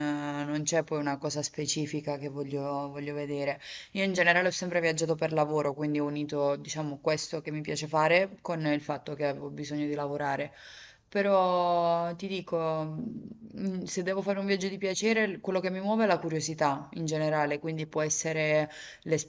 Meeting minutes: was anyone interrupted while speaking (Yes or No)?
No